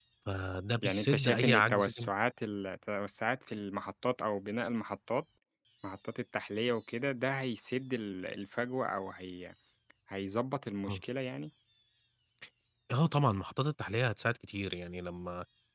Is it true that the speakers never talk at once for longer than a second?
No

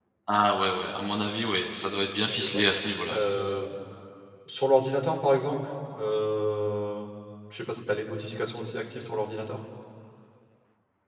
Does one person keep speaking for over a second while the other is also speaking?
No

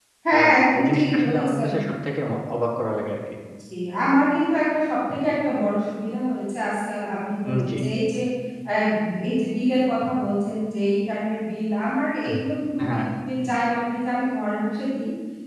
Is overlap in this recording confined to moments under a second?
No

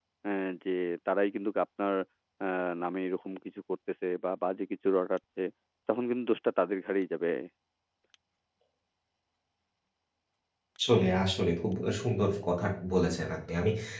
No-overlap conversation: Yes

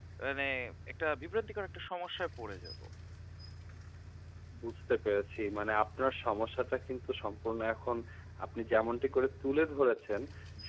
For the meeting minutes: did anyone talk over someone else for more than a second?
No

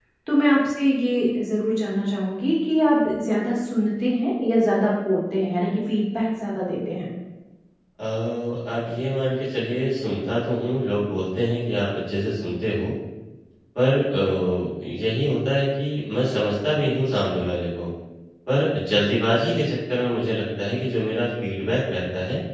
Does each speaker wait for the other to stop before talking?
Yes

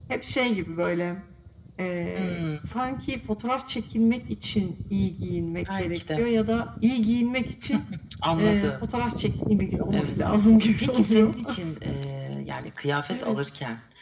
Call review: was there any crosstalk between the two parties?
Yes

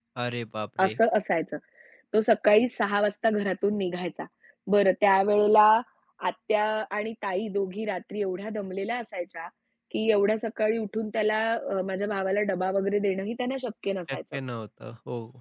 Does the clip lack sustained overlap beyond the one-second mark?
Yes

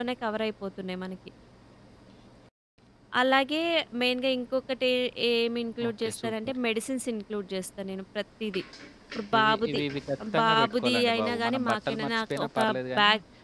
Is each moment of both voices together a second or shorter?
No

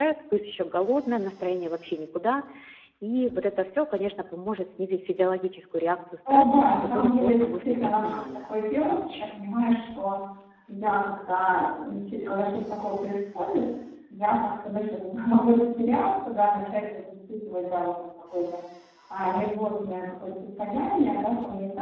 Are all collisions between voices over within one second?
No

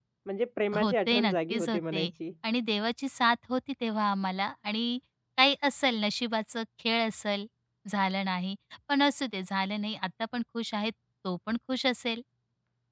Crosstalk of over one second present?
Yes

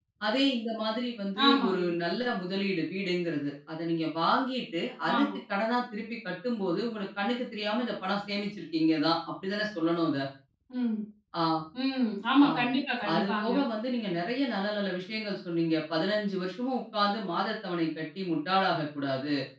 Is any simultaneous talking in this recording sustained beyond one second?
No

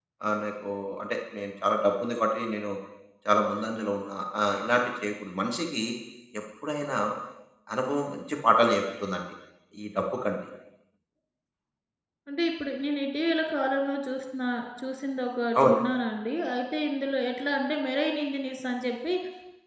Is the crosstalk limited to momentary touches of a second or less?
Yes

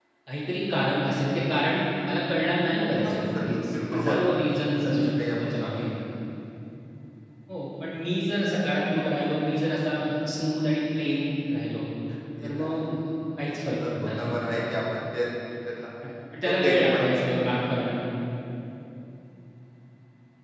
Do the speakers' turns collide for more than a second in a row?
Yes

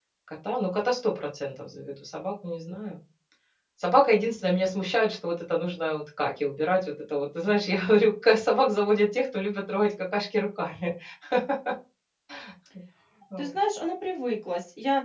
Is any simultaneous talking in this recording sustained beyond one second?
No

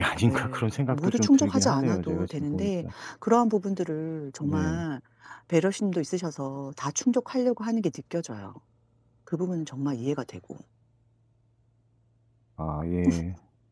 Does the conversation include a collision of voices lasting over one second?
Yes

